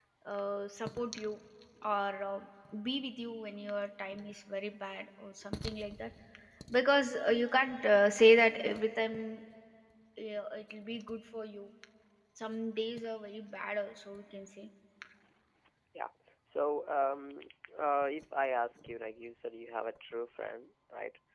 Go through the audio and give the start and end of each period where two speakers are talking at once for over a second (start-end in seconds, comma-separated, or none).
none